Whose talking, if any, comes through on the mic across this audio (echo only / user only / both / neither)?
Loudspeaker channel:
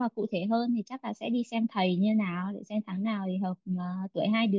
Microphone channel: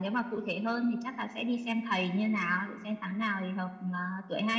echo only